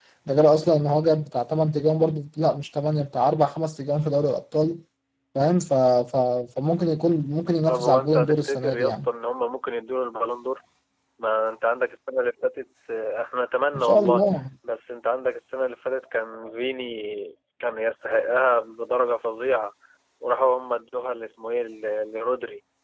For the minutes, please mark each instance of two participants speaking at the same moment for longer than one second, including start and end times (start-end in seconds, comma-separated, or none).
7.7-9.1